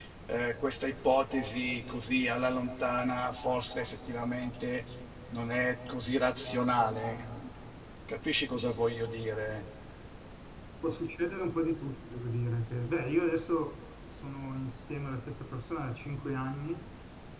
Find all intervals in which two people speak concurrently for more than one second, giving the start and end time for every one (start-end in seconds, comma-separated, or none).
none